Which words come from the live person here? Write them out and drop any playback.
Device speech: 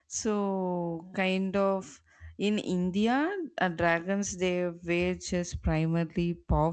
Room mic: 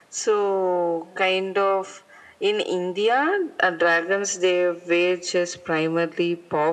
none

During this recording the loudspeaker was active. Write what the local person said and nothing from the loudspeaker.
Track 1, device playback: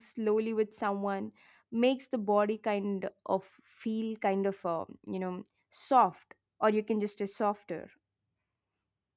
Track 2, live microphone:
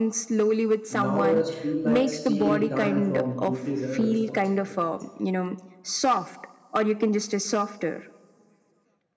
now rest feel like stealing time from duties and responsibilities

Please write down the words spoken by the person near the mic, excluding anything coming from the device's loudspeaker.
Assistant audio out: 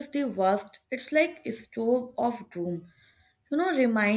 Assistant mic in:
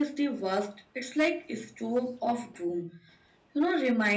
none

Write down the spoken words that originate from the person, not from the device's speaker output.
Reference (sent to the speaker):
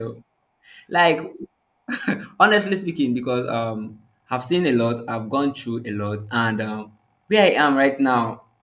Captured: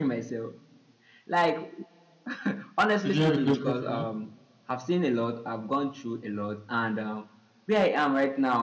So do you have a question for me?

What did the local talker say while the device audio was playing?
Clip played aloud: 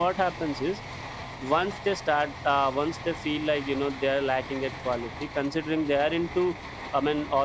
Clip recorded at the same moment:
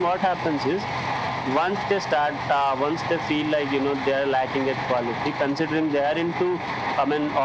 none

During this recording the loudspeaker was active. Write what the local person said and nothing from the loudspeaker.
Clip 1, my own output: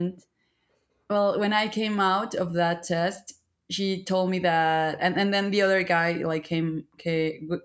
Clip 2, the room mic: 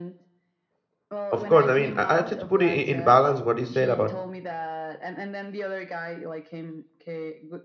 of course, I mean, I, I try to put it in, in balance what you said about

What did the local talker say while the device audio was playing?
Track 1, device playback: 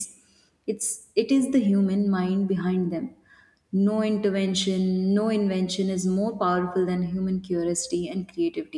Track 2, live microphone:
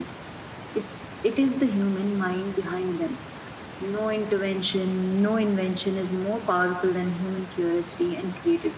none

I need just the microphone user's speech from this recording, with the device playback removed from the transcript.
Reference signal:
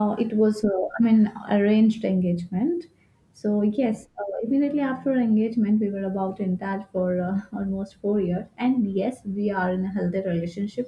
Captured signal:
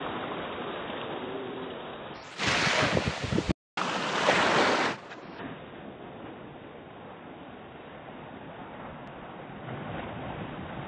none

